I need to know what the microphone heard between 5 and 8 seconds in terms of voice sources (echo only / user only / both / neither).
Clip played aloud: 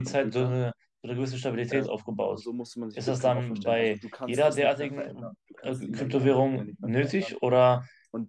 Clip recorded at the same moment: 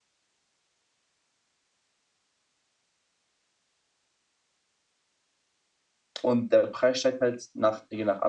user only